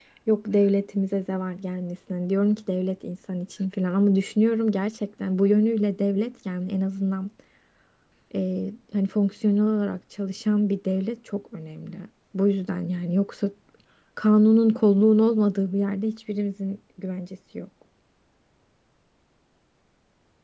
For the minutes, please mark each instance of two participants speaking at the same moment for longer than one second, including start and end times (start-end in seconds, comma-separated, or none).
none